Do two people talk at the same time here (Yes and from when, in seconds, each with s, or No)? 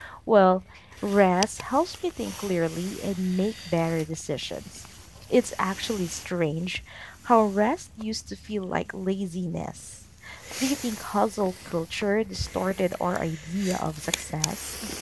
No